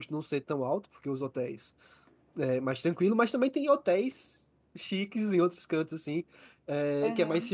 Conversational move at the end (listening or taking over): listening